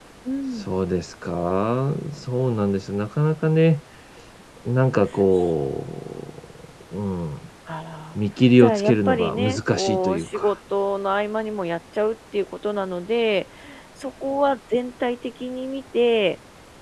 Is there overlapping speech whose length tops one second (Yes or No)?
Yes